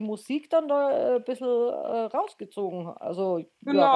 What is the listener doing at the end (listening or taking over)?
taking over